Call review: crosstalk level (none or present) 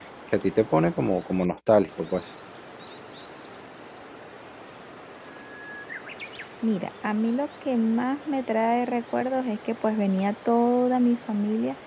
none